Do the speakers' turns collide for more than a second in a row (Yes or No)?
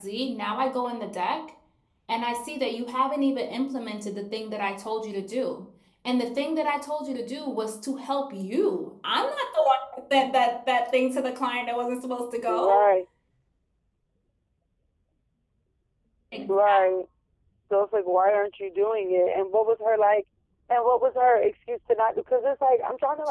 No